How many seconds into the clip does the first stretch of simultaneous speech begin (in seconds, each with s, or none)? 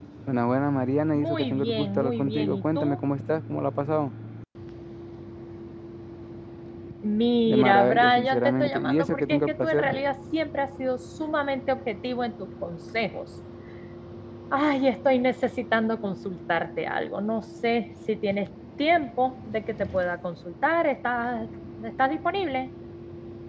1.2 s